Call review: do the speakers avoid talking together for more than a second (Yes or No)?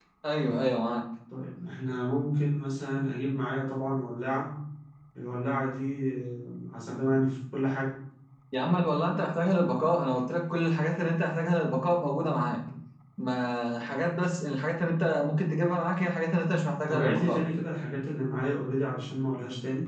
Yes